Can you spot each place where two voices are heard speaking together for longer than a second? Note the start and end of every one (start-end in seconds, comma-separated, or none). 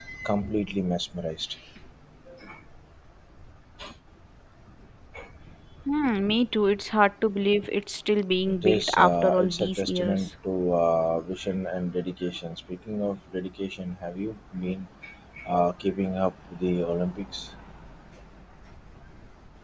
8.6-10.2